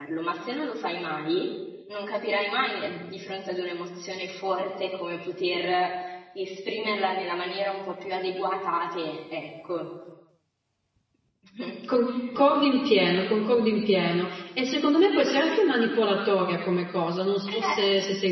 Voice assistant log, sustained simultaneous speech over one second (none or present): none